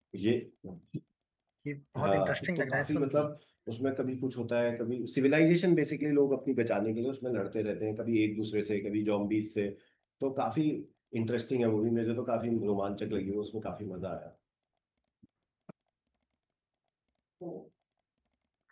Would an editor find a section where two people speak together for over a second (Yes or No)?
Yes